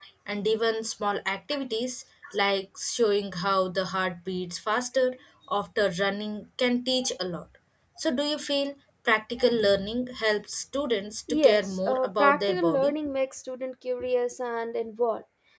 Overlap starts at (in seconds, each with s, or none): 11.3 s